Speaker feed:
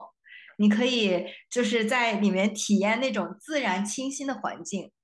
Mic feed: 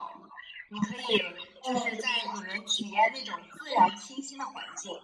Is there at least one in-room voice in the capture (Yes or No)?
Yes